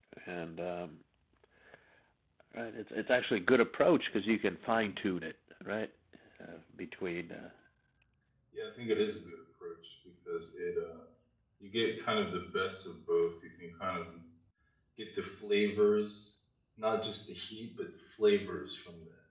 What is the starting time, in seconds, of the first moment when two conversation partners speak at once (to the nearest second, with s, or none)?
none